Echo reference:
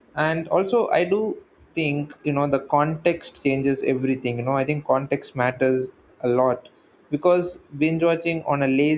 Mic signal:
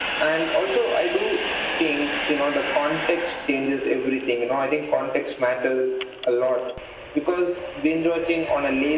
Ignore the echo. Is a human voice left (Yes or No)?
No